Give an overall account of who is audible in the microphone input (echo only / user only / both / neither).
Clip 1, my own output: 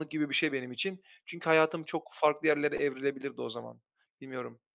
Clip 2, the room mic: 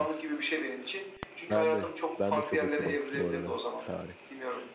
both